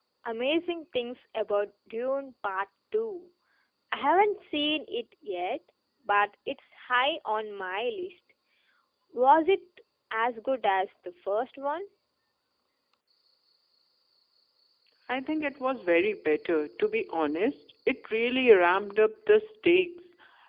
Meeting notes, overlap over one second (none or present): none